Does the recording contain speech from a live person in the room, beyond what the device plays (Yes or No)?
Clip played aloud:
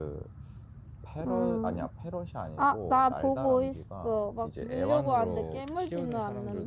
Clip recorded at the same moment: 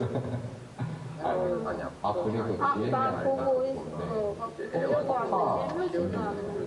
Yes